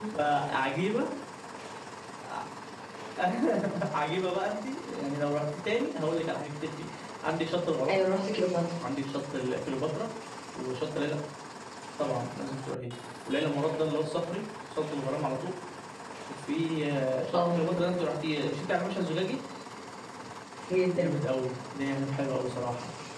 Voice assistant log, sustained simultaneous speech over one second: none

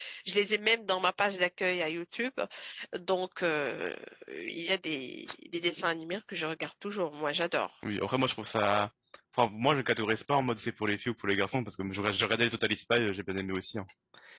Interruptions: none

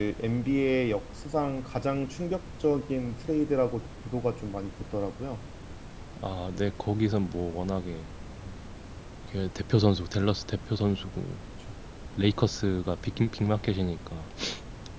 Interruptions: none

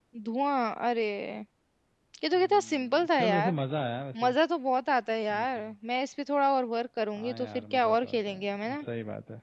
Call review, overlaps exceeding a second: present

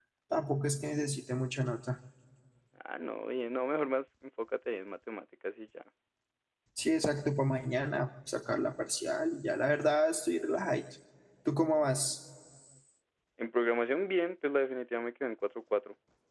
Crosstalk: none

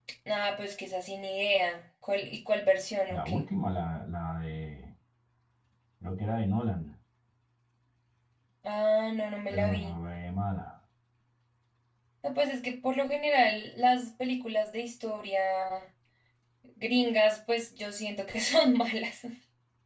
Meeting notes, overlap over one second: none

